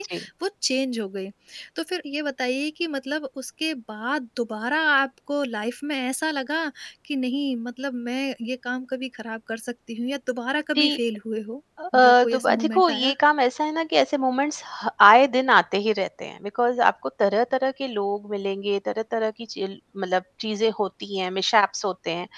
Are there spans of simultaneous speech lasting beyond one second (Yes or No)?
Yes